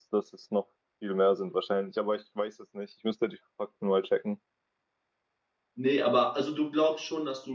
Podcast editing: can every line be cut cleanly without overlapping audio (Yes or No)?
Yes